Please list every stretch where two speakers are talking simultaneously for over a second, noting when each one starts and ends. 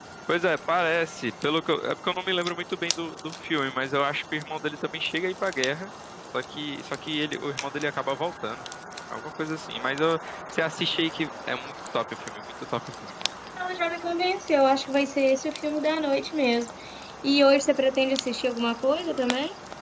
none

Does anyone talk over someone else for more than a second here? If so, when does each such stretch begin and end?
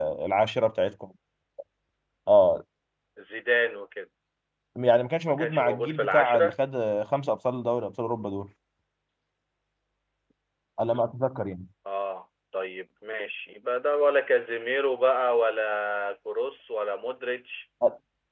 5.2-6.5

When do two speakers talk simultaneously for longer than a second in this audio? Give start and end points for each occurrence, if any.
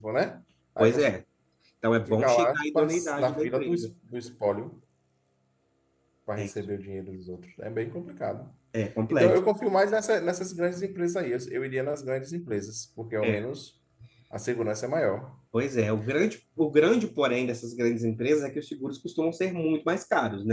2.1-3.9

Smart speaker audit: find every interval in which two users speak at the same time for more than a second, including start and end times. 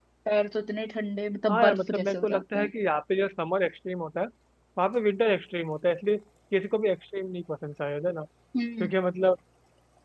1.5-2.7

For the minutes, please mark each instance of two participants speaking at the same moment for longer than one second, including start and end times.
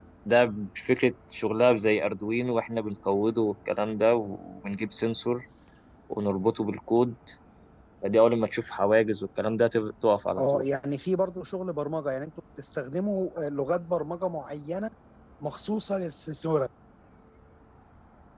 none

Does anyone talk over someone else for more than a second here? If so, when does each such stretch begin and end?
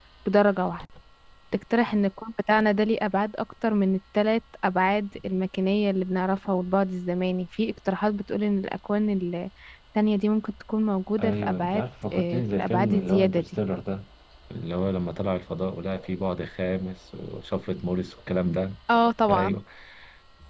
11.2-13.4

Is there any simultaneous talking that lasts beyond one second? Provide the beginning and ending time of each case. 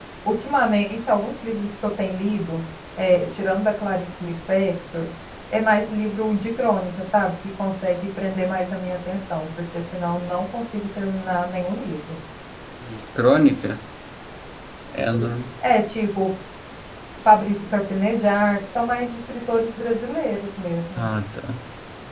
none

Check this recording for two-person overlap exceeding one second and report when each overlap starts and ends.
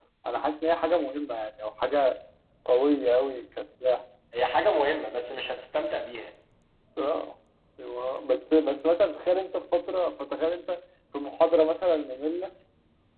none

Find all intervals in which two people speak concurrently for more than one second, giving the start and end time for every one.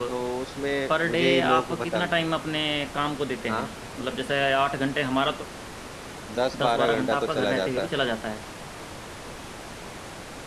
0.9-2.1, 6.6-7.9

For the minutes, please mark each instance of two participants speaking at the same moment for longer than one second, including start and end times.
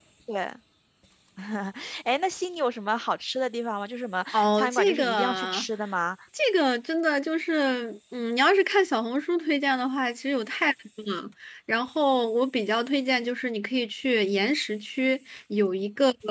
4.3-5.7

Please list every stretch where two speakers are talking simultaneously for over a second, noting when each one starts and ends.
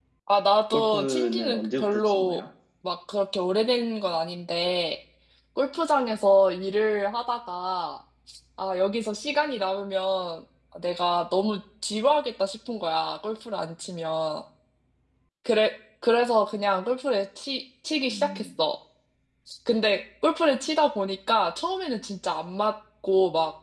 0.7-2.4

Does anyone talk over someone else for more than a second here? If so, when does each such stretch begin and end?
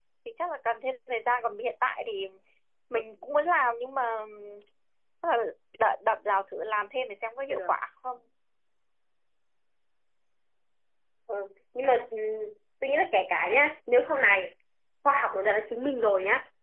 none

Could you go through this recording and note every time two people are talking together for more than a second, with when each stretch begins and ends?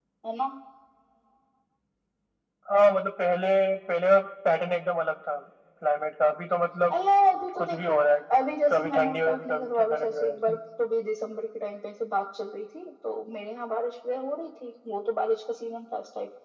8.7-10.6

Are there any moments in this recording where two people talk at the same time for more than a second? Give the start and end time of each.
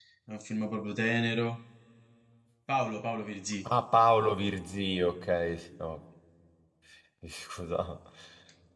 none

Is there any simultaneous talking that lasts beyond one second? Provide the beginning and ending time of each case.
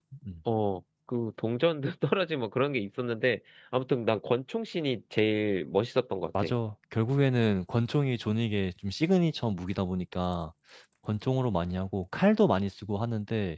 none

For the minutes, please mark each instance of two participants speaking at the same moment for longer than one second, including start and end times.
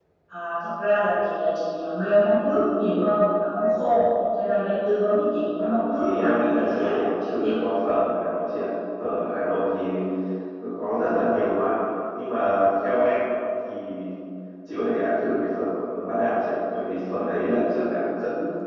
5.6-7.6

